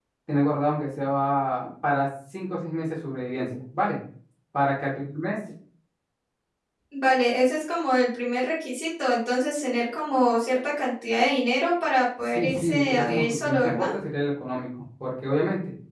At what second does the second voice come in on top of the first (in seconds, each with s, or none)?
12.3 s